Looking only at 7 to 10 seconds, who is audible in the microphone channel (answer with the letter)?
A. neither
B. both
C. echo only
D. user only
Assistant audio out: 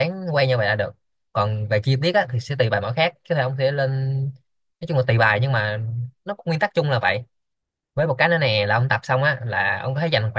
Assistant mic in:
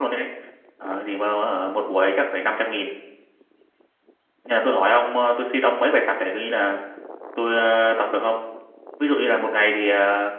D